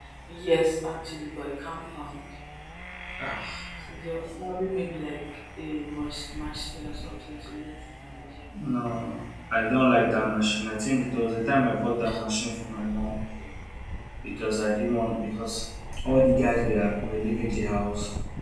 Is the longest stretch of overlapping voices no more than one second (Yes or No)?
Yes